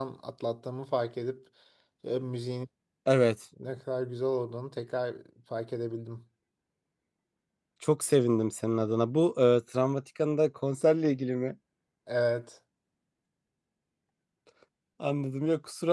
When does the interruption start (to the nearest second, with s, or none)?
none